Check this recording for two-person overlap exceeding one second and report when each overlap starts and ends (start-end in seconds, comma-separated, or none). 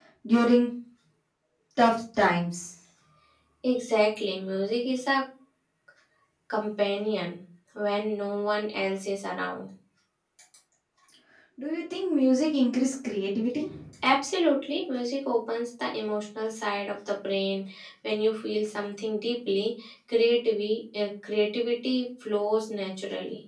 none